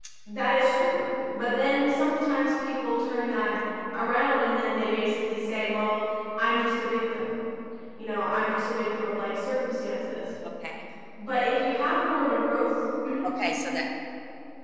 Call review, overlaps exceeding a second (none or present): none